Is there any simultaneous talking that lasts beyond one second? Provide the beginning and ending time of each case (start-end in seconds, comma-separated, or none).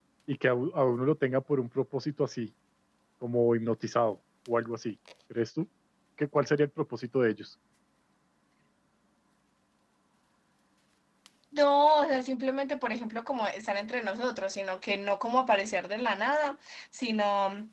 none